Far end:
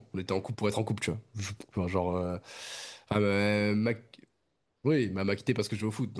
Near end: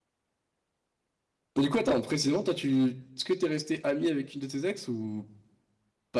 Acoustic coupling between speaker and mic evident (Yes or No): No